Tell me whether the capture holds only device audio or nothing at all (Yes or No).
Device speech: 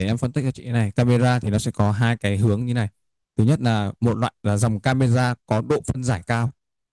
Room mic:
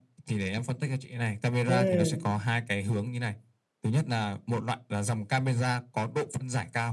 No